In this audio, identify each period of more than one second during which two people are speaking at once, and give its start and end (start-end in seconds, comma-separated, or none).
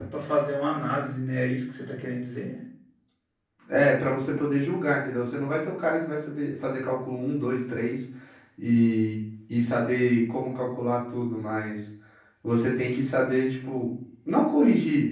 none